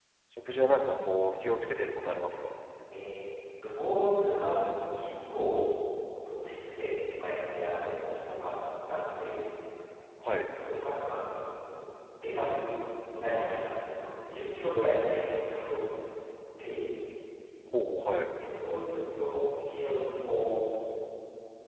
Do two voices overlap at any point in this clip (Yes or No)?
No